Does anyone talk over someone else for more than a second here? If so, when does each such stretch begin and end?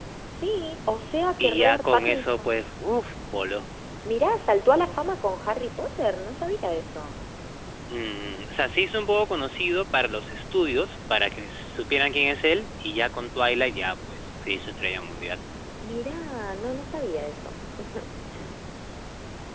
1.4-2.6

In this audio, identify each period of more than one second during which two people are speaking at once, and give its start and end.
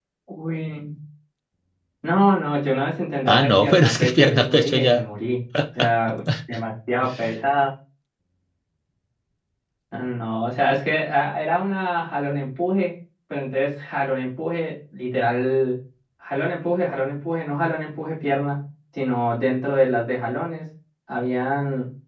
3.2-5.0

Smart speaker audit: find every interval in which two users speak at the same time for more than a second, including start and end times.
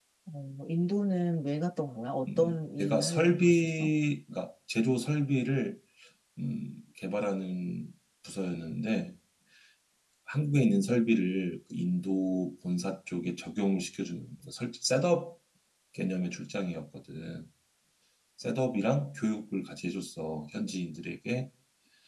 2.4-3.9

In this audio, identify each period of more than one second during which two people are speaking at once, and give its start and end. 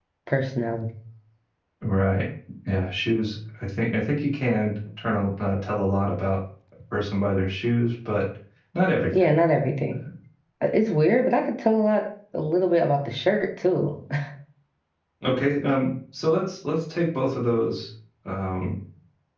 none

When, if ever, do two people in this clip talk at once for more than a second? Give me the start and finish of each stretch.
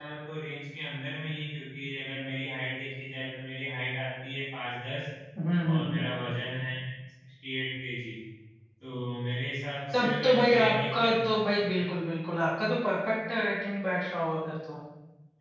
9.9-11.3

